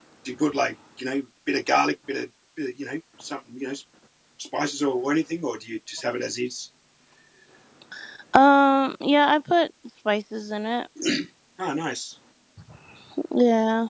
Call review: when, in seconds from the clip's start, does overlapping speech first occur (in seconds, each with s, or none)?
none